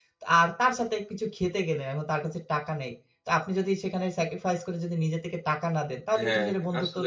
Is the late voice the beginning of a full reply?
Yes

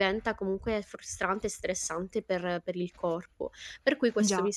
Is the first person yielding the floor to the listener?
No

